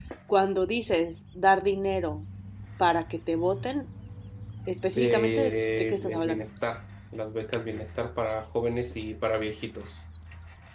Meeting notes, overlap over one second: present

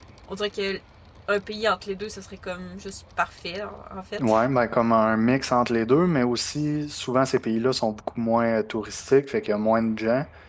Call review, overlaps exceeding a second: none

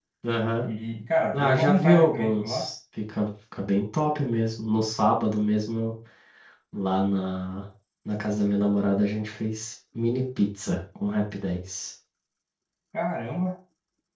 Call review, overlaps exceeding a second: present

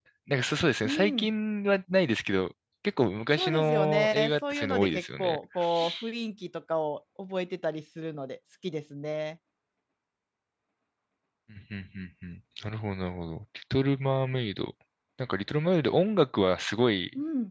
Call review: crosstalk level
present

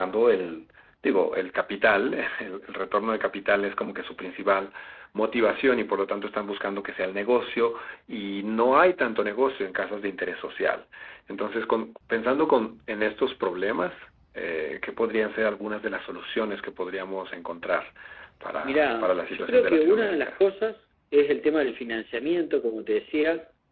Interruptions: present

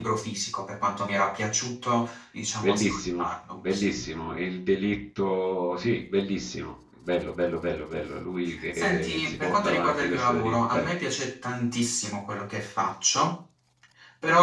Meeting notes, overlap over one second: present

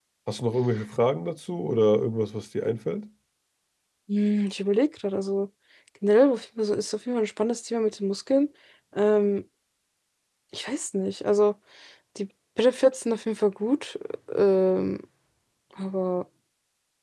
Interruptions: none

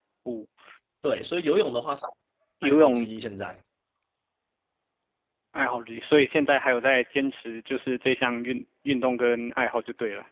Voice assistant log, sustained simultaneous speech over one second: none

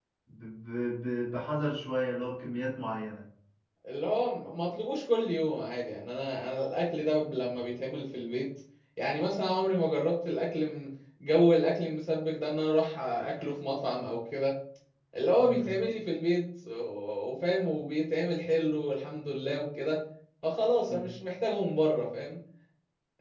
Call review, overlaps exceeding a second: none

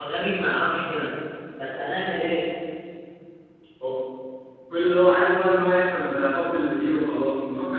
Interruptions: none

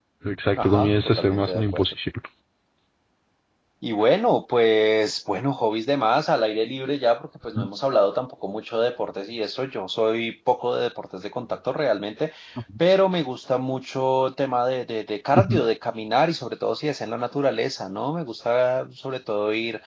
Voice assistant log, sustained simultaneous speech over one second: present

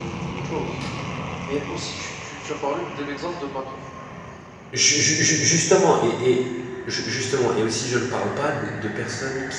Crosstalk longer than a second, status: none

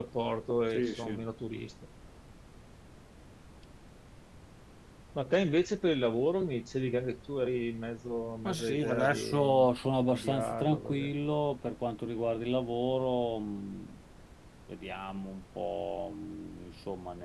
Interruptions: present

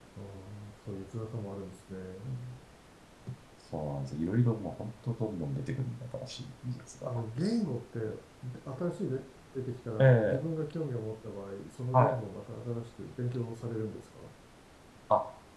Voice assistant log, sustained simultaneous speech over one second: none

